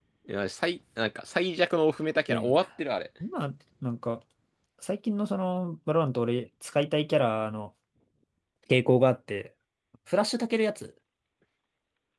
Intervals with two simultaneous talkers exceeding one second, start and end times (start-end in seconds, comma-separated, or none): none